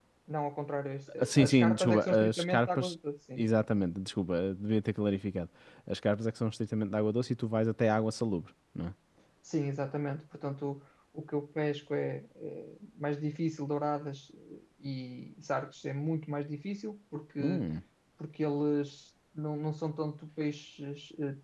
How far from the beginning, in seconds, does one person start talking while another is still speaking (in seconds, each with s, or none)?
1.2 s